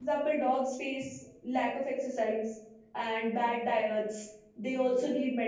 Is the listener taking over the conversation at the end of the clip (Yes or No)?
No